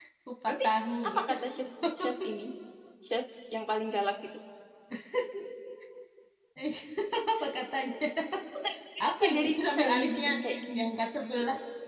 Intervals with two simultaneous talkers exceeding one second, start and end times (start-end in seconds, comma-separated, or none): 9.0-10.3